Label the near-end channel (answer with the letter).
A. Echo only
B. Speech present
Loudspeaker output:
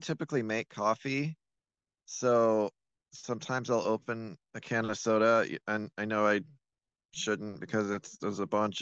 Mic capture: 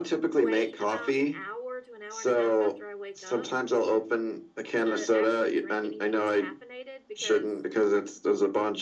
B